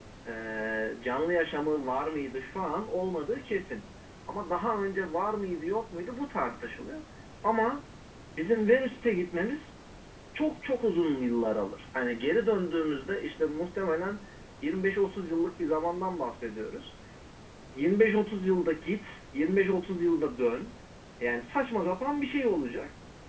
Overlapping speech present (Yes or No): No